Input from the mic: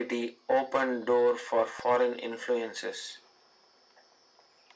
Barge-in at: none

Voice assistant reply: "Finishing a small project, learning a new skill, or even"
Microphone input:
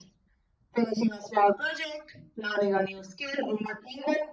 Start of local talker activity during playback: none

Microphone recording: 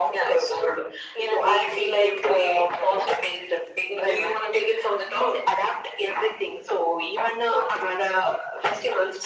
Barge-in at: none

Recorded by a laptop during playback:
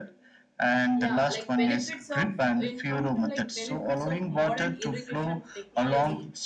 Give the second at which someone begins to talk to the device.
1.0 s

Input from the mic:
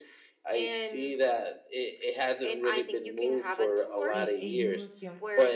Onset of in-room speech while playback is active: 4.1 s

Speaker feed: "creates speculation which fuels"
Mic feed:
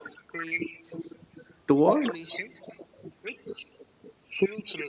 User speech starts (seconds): 1.7 s

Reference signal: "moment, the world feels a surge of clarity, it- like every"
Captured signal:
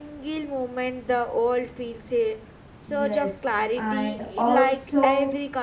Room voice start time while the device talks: 2.8 s

